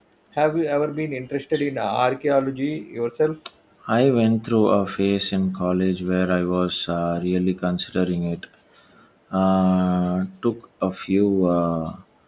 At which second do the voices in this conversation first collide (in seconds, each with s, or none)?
none